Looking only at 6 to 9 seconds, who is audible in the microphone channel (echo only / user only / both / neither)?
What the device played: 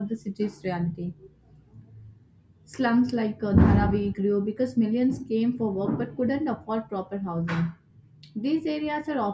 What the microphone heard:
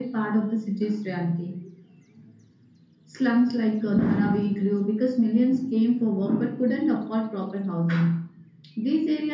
echo only